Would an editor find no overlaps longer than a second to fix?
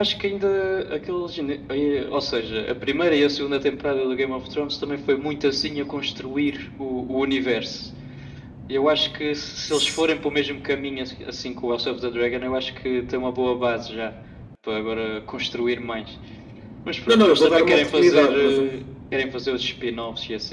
No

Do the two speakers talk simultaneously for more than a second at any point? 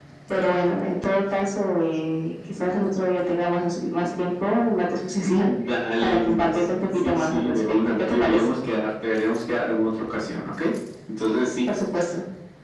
Yes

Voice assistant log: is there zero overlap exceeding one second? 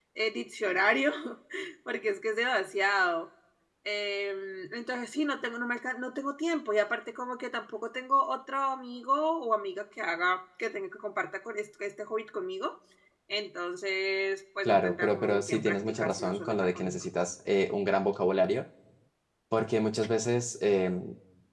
No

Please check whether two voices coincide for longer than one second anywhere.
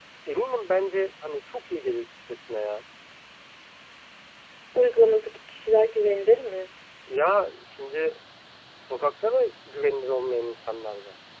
No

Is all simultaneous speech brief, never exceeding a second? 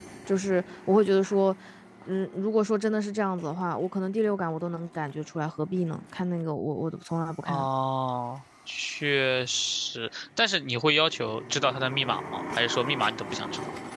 Yes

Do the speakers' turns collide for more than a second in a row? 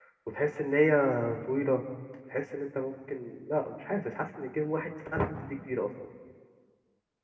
No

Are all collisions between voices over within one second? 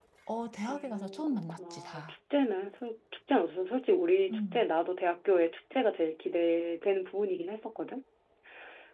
No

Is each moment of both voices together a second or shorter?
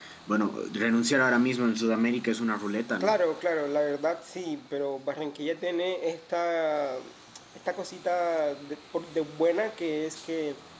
Yes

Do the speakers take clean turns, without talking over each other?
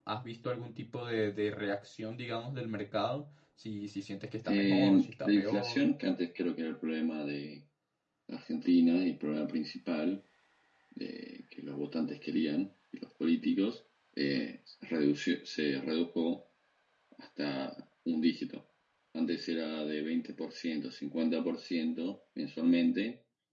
No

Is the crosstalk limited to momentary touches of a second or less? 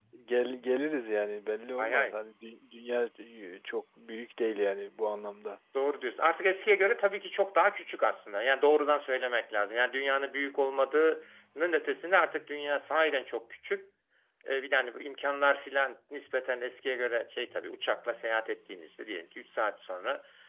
Yes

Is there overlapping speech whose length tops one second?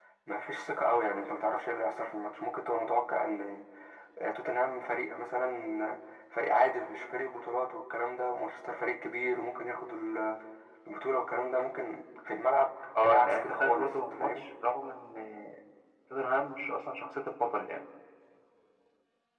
Yes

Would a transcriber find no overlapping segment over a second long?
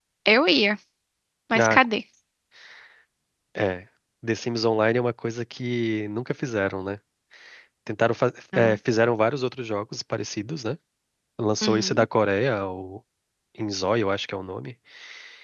Yes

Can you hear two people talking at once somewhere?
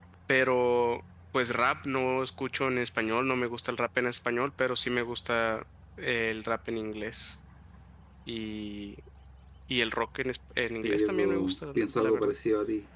Yes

